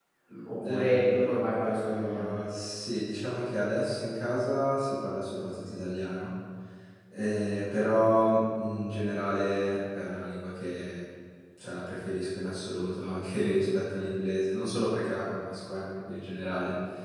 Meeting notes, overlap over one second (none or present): present